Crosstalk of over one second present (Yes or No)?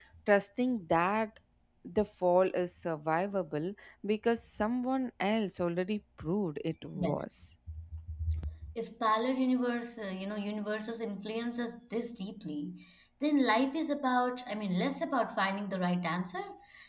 No